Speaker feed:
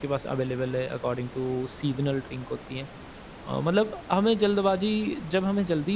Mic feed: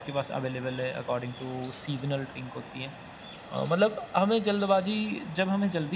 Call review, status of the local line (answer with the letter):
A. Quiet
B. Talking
A